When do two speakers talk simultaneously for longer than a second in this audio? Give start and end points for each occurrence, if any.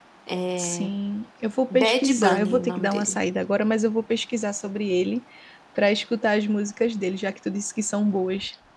1.7-3.2

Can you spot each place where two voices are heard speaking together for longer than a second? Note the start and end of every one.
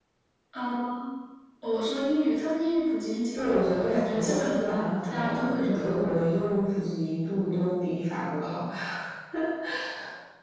3.3-6.2

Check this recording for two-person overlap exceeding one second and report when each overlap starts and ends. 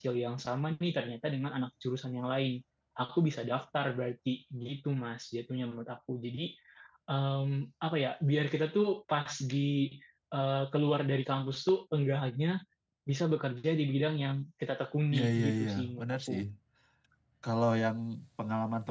15.1-16.3

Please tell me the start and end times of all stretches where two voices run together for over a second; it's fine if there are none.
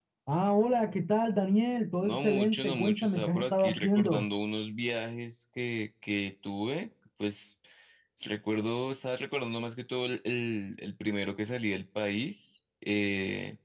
2.0-4.2

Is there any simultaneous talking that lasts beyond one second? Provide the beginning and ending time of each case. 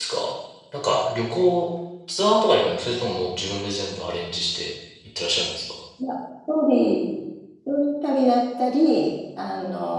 none

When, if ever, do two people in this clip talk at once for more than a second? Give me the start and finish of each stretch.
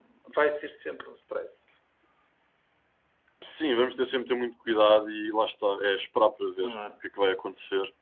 none

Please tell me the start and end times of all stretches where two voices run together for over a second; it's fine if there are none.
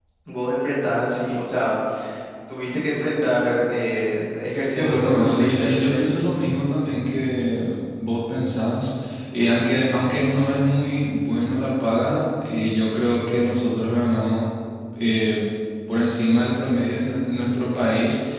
4.8-6.0

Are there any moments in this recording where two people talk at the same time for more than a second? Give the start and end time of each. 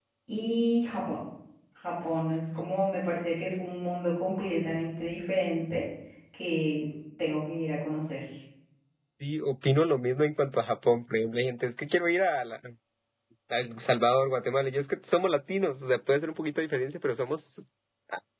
none

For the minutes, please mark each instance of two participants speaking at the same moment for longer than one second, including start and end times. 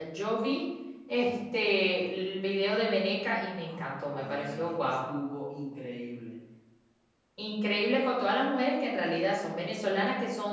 3.7-5.0

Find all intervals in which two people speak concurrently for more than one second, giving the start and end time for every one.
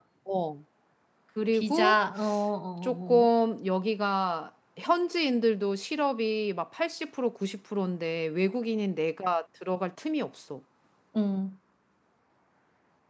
none

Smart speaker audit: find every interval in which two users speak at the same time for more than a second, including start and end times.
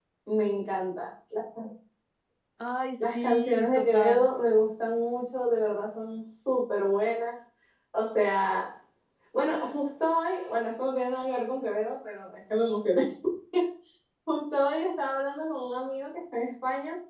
3.0-4.3

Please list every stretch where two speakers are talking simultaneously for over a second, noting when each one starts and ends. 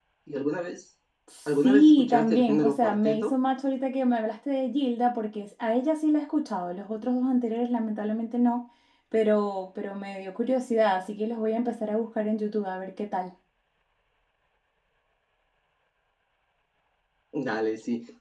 1.5-3.3

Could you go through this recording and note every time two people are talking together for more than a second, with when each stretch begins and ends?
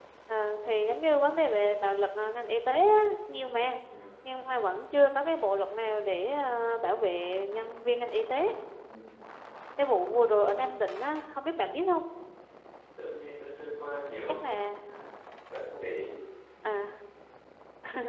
none

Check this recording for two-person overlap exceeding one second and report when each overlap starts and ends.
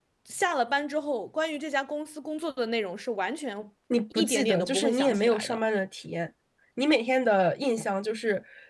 4.2-5.6

